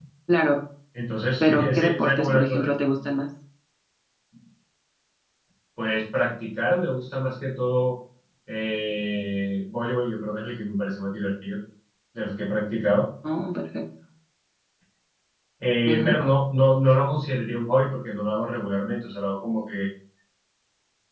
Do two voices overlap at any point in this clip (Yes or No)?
Yes